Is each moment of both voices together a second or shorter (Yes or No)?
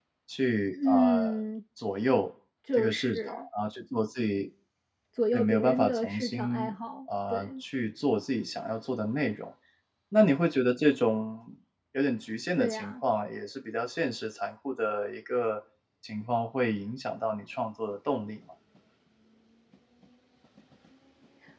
No